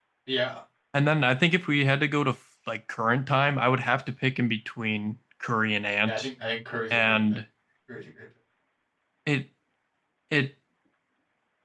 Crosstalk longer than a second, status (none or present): none